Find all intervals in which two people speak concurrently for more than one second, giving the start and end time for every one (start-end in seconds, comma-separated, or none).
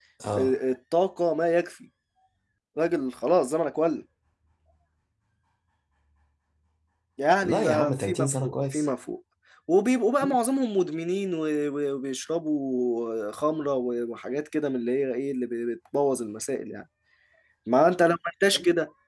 7.4-8.9